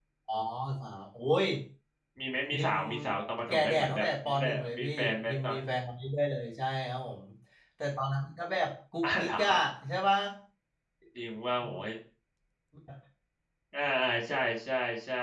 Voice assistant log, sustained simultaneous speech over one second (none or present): present